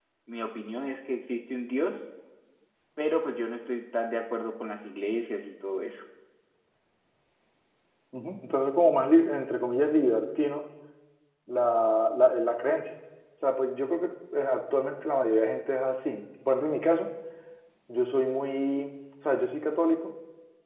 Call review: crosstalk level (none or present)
none